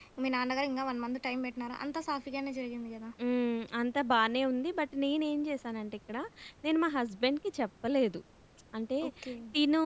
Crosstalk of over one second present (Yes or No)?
No